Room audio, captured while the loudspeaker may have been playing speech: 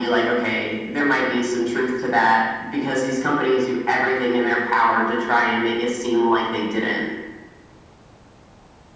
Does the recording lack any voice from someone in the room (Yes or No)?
Yes